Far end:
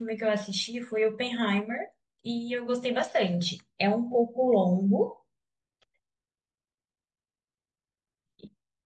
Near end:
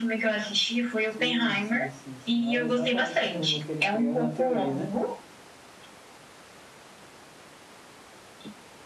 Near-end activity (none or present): present